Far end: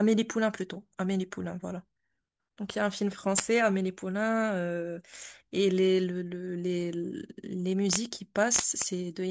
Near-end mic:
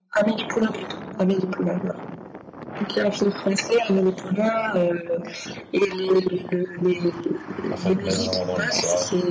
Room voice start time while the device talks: 7.7 s

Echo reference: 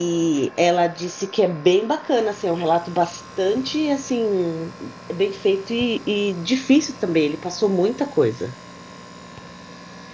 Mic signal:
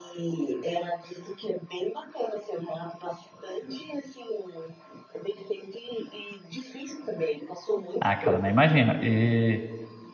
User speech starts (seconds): 8.0 s

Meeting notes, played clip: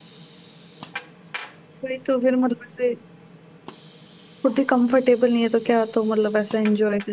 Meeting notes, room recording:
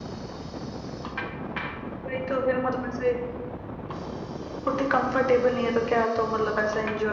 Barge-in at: none

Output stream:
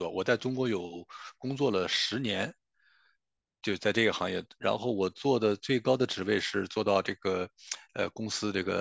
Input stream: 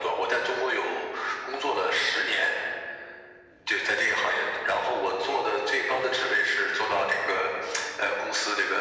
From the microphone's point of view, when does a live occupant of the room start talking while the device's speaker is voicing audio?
none

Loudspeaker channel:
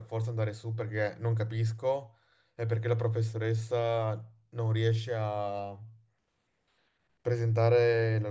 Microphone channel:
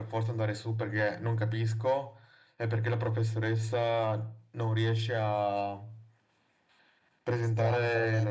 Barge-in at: 7.4 s

